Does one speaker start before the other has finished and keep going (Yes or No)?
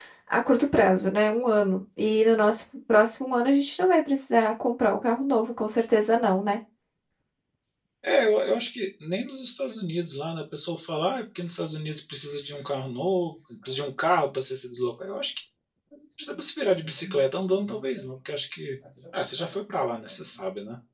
No